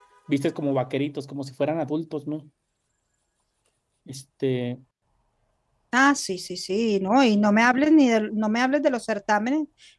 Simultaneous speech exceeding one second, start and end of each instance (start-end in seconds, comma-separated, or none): none